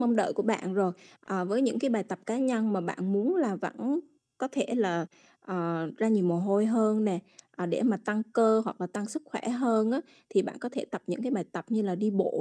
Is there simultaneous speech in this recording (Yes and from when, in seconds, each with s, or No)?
No